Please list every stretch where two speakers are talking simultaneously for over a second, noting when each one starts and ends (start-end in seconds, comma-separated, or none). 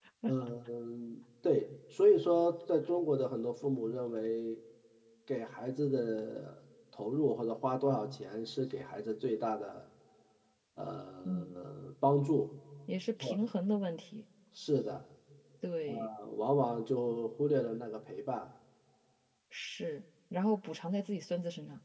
none